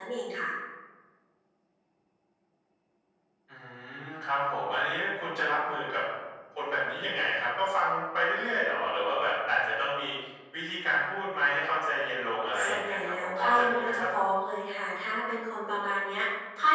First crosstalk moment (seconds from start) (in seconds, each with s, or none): 12.6 s